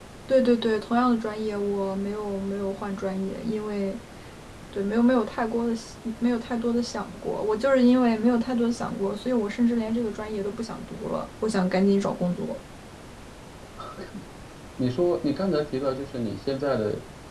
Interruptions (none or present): none